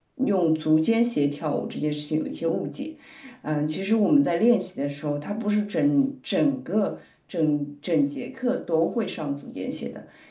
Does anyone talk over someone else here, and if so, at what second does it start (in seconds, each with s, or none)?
none